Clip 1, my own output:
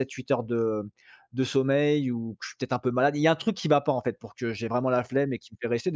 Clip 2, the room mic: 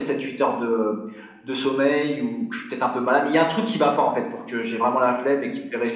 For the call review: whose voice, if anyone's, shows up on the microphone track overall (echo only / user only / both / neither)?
echo only